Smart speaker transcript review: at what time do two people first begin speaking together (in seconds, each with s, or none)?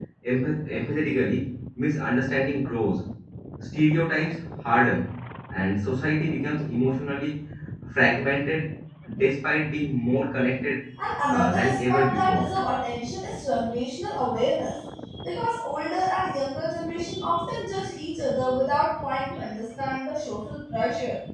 11.3 s